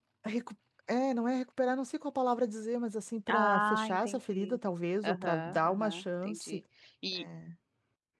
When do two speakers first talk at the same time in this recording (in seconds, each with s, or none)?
3.3 s